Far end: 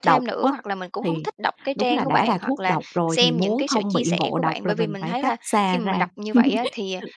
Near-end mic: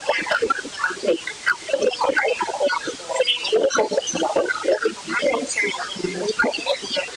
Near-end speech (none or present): none